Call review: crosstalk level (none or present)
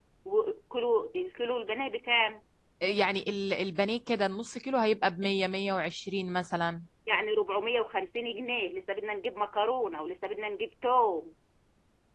none